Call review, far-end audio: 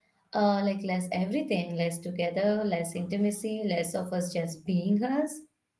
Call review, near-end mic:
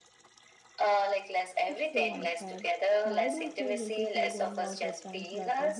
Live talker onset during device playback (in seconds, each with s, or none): 1.7 s